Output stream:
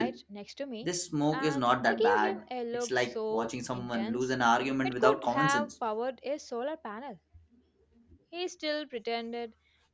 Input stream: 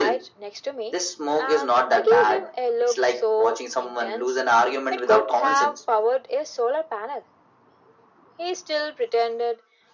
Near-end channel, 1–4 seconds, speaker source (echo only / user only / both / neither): echo only